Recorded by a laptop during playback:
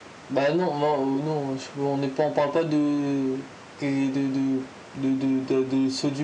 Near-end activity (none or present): none